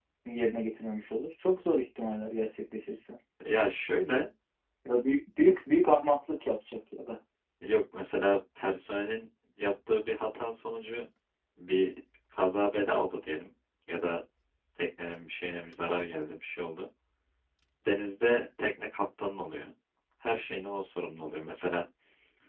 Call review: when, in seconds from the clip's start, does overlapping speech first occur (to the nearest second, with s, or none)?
none